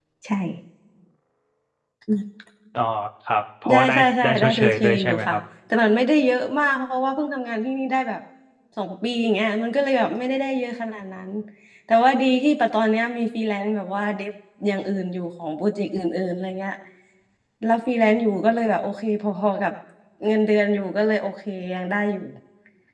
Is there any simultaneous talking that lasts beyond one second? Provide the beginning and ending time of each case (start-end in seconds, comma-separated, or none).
3.7-5.4